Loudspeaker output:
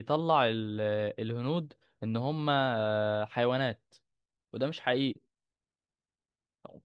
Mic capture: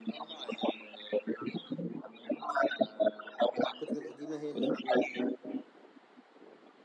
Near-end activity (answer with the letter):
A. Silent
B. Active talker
B